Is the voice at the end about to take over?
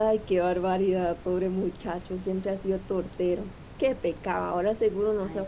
No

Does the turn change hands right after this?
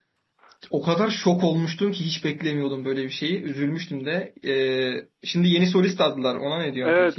Yes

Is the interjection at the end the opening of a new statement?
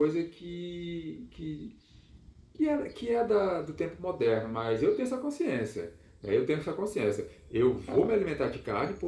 No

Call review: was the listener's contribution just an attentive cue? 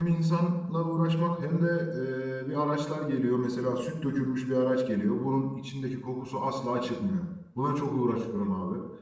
Yes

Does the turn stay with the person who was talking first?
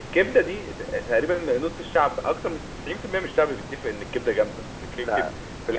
Yes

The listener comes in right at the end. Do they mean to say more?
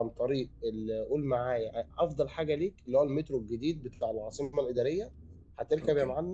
No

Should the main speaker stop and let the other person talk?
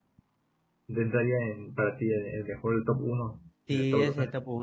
Yes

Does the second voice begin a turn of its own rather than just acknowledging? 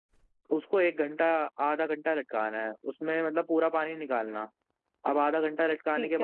No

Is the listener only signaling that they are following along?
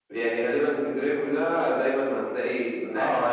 No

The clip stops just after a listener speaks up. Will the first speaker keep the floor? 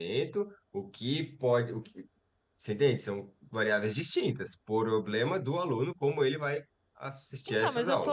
No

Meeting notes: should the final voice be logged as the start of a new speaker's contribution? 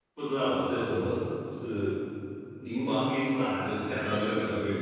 No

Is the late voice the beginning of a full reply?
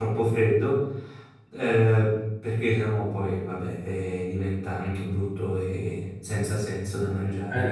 Yes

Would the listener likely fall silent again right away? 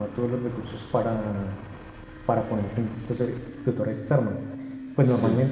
Yes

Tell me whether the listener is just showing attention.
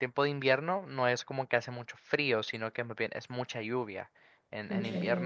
Yes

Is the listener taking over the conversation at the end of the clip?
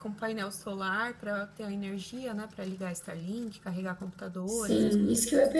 Yes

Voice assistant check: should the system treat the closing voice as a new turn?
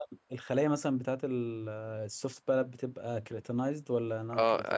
Yes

